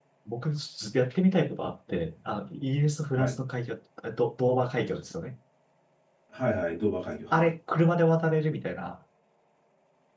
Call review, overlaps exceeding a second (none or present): none